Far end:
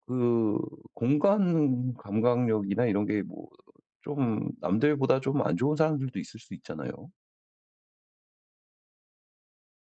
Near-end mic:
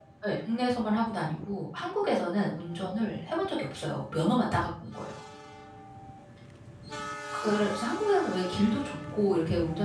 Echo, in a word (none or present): none